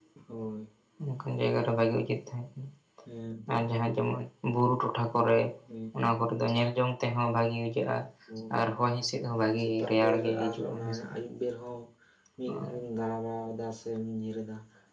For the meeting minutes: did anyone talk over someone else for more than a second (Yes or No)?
Yes